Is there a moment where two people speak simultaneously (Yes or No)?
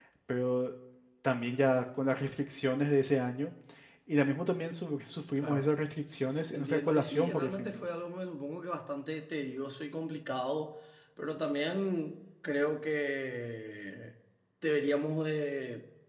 Yes